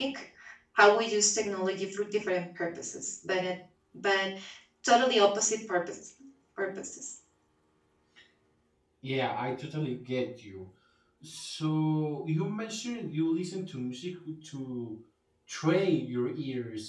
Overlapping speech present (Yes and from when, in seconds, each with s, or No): No